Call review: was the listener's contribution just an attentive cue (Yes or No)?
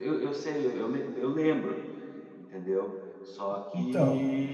Yes